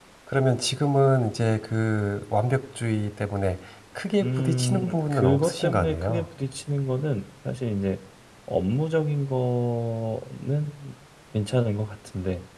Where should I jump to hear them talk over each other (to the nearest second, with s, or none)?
4 s